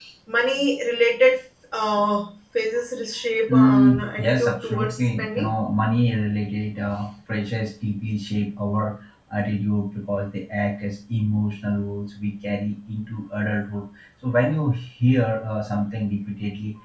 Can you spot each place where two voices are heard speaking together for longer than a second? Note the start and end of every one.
3.5-5.5

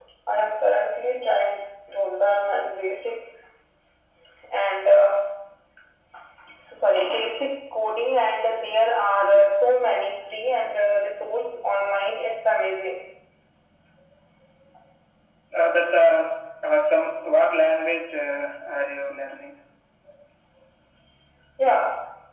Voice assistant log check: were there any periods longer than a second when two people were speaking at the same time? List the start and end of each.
none

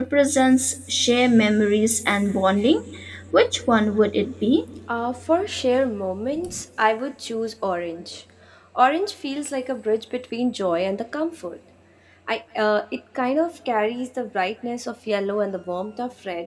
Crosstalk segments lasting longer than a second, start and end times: none

